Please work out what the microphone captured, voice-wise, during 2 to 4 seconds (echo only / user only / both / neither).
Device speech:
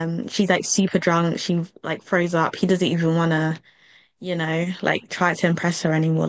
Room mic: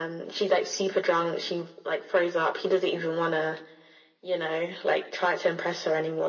echo only